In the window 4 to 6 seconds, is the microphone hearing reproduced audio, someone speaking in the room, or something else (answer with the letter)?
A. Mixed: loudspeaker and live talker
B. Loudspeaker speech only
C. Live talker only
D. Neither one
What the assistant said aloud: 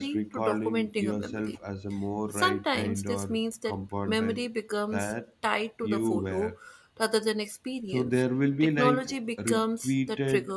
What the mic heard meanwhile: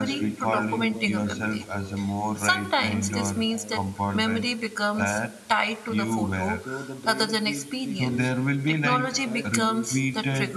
A